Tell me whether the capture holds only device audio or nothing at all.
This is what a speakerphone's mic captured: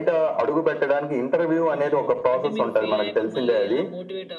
No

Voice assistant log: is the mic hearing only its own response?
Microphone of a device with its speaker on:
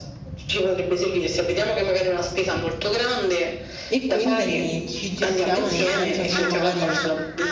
No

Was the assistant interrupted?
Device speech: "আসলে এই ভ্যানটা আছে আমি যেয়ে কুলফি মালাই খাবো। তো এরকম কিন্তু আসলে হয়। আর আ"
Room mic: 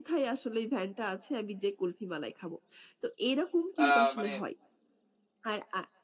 Yes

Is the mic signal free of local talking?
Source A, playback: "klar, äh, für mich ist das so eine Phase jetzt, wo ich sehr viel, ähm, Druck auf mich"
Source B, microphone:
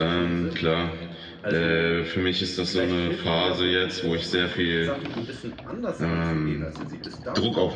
No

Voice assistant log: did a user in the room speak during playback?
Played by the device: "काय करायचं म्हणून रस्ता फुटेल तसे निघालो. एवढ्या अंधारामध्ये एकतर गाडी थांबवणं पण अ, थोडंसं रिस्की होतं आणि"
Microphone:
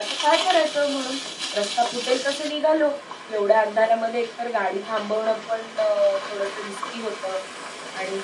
No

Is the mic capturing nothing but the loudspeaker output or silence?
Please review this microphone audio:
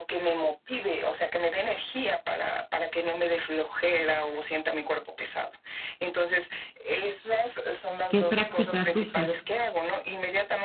No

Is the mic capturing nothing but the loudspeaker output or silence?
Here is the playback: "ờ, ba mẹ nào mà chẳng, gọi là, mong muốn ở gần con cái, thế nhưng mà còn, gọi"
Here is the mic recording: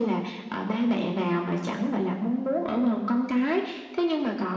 Yes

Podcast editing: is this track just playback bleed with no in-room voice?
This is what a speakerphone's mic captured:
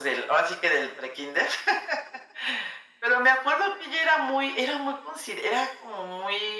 Yes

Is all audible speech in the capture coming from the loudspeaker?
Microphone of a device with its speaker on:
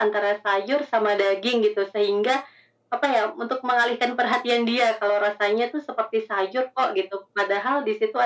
Yes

